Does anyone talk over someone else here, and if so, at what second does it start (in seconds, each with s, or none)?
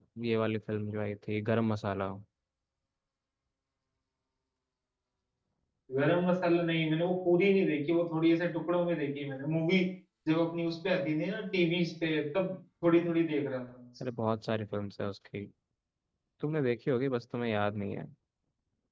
none